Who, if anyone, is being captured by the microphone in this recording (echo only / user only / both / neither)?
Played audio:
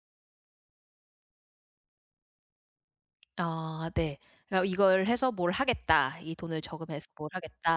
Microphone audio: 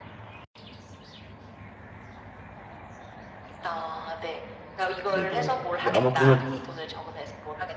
both